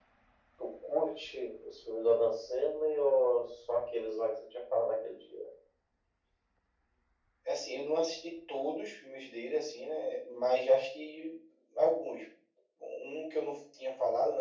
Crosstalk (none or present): none